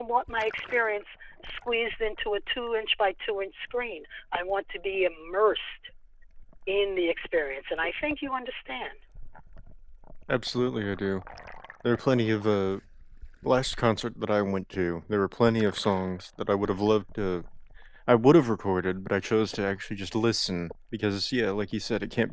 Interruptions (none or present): none